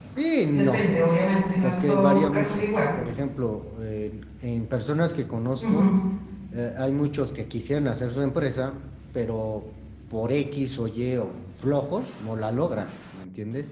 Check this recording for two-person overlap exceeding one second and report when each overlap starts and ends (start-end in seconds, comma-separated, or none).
1.6-3.0